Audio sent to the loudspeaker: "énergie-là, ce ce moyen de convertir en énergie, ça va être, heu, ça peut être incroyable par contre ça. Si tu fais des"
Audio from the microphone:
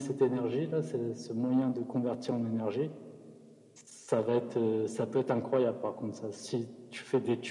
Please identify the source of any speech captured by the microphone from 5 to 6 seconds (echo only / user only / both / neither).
echo only